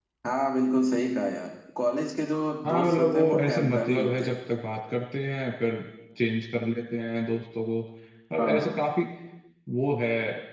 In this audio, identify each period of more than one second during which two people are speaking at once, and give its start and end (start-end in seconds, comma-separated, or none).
2.6-4.4